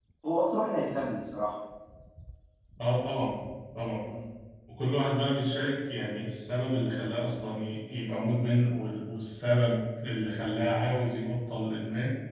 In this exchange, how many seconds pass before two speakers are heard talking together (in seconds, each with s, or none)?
none